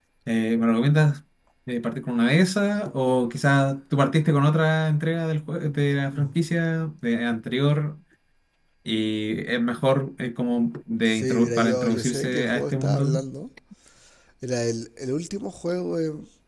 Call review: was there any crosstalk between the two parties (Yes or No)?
Yes